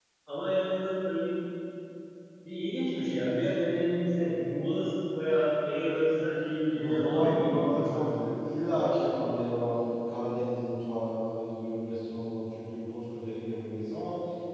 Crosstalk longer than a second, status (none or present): present